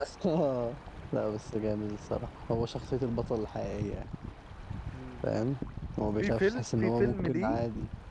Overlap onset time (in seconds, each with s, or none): 6.2 s